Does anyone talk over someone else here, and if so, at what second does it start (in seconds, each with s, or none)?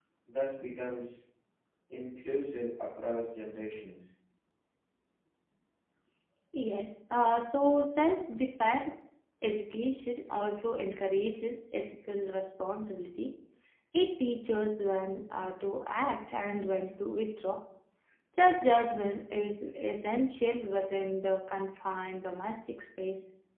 none